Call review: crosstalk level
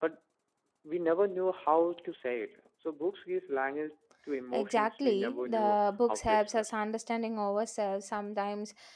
present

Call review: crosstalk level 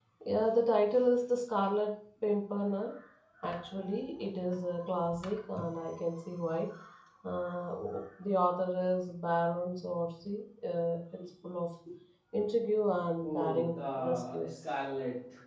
present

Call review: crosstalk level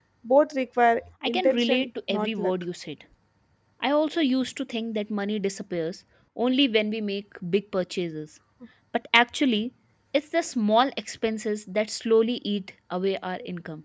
present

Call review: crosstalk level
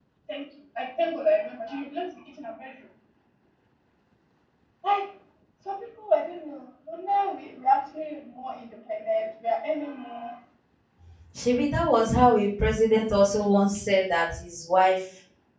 none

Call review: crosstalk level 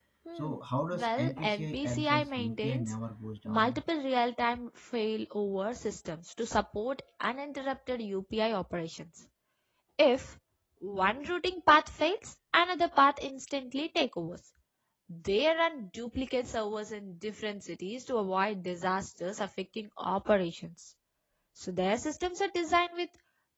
present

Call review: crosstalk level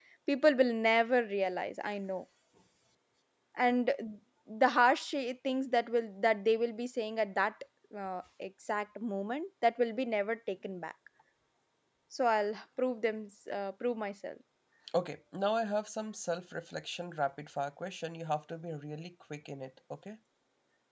none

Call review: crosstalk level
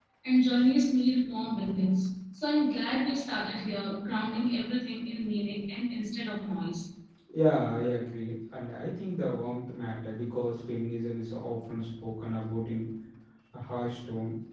none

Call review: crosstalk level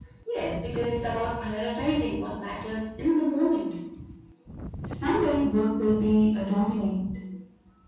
none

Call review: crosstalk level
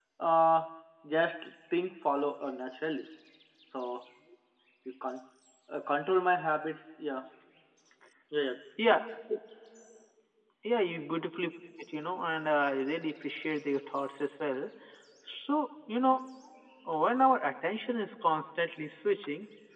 none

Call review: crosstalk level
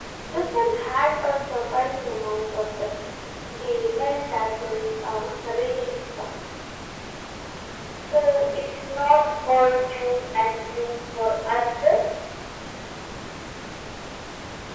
none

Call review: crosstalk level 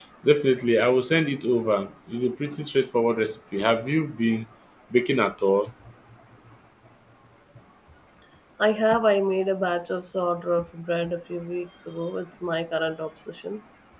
none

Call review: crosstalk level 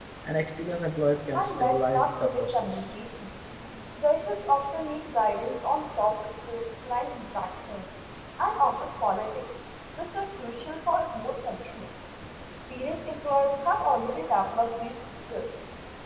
present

